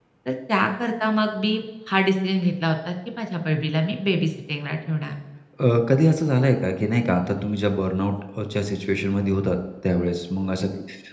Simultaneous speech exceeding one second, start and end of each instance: none

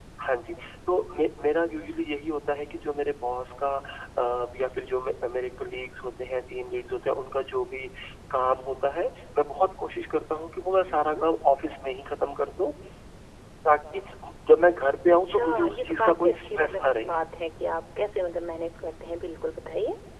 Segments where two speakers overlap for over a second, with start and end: 15.2-17.1

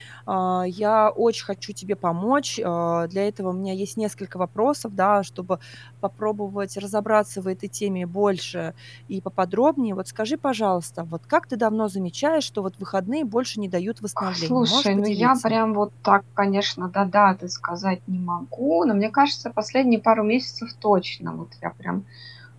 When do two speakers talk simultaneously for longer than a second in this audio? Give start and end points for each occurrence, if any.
14.3-15.6

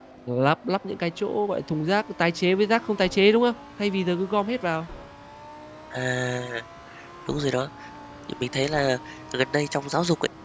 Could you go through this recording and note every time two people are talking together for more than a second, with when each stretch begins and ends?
none

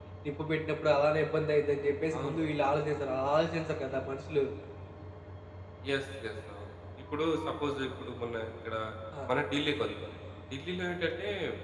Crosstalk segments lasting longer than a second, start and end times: none

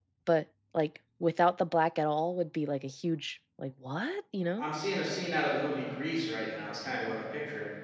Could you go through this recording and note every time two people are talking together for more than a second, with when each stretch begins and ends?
none

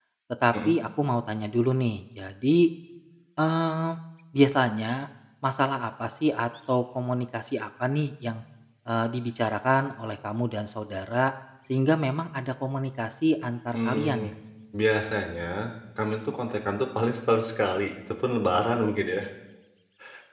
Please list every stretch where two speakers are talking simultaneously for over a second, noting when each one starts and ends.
none

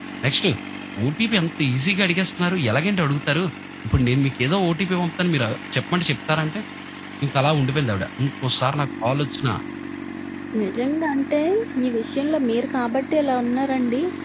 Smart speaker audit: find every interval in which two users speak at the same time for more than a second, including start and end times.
none

